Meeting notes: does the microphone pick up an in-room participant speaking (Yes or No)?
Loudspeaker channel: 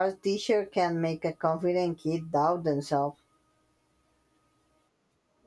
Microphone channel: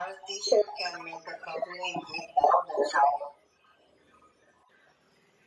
No